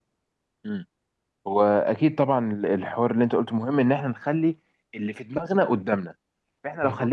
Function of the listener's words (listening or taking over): listening